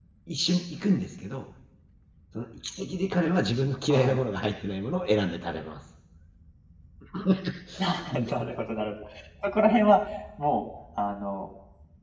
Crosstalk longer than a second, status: none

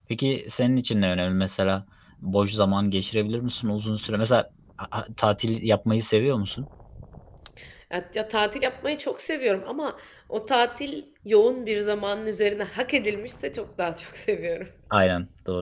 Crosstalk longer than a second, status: none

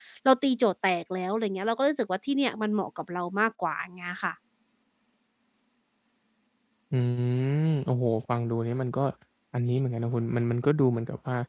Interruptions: none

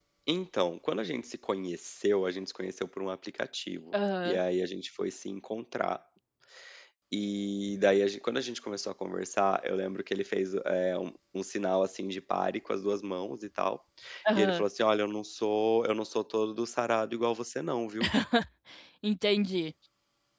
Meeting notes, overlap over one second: none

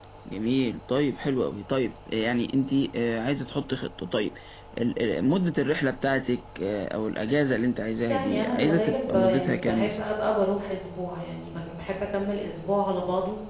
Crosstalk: present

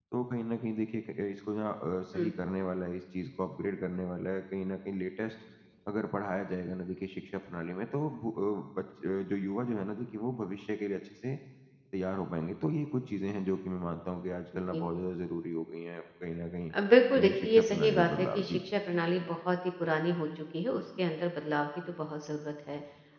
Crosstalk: present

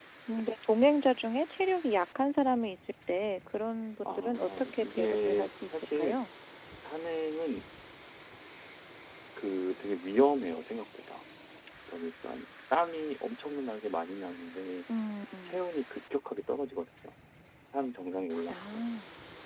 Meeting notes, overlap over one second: present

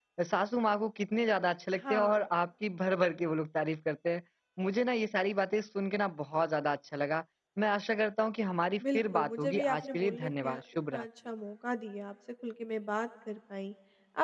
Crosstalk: present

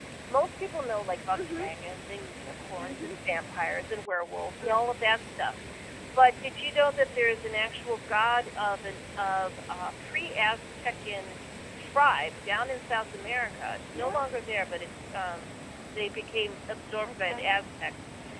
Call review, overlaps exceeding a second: none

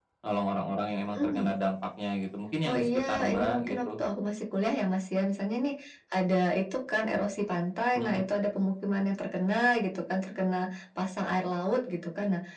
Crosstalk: present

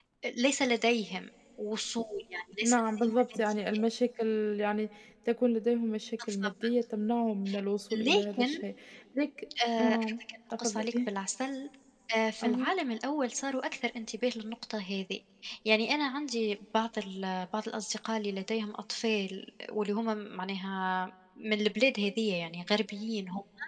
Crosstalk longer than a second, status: present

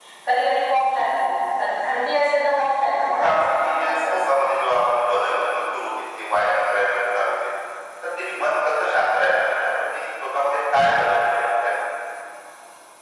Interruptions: present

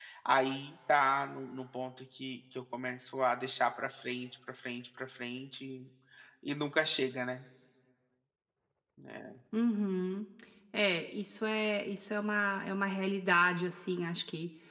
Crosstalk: none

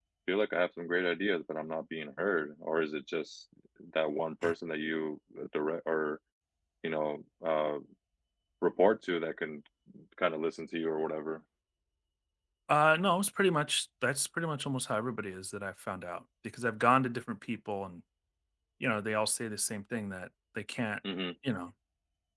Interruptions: none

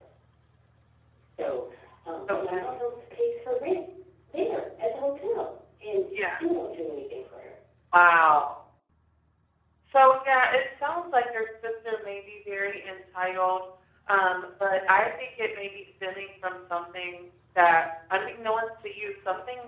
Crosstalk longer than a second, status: none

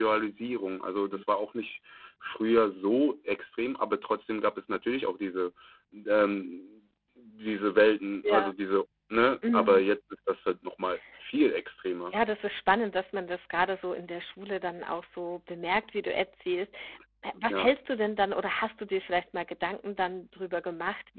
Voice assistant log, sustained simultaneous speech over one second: none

